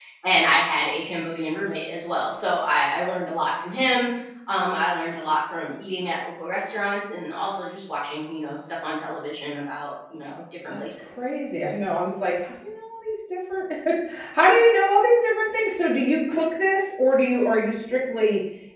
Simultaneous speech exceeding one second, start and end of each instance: none

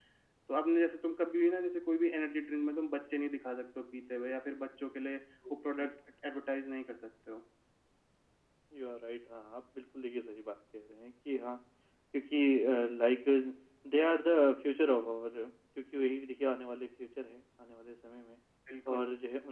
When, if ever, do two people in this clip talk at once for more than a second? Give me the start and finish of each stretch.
none

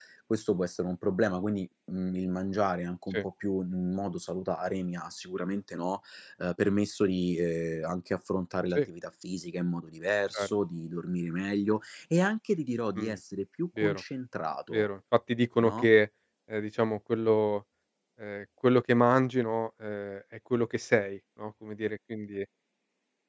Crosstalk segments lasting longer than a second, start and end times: none

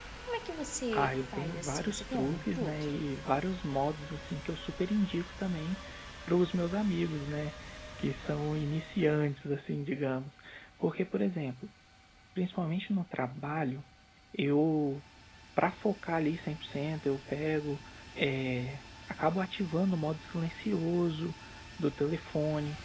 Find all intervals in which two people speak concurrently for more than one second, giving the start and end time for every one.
0.9-3.0

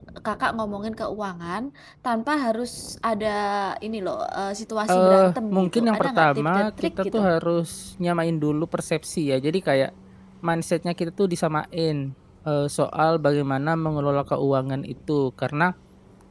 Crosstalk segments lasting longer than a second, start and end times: 4.9-7.2

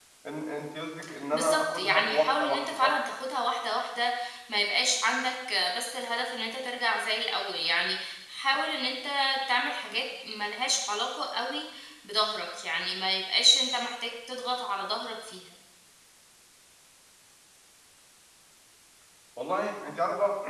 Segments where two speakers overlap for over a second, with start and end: 1.3-2.9

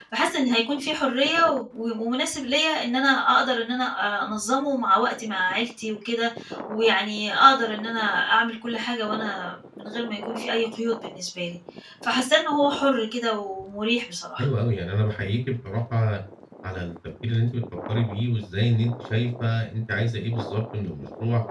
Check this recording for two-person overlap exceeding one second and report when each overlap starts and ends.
none

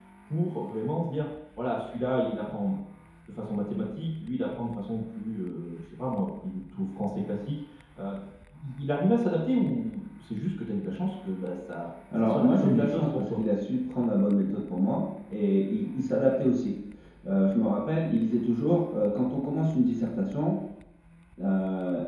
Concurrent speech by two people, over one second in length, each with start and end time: 12.2-13.4

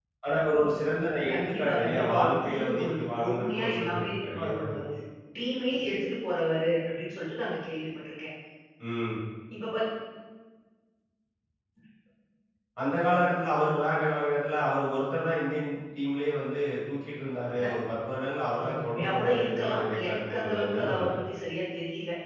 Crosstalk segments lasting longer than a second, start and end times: 1.3-4.6, 18.6-21.1

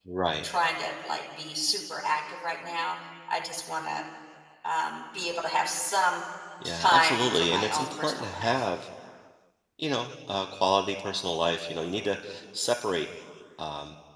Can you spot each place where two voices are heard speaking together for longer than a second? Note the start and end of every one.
6.8-8.5

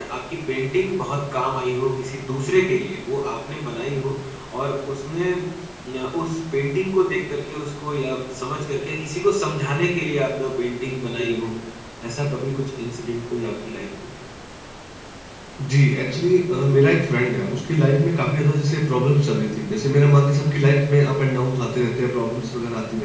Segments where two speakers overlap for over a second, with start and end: none

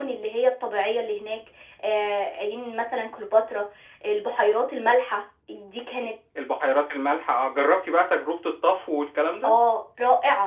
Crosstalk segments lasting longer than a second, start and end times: none

